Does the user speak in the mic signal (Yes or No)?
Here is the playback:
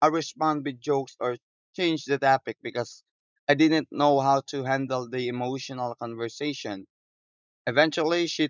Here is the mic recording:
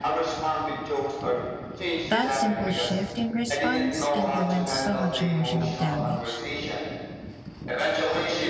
Yes